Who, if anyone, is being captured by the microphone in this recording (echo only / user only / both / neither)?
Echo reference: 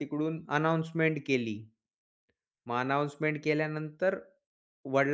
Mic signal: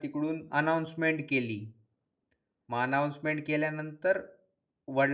echo only